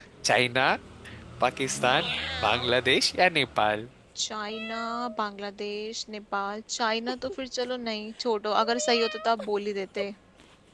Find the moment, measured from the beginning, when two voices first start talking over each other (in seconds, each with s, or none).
none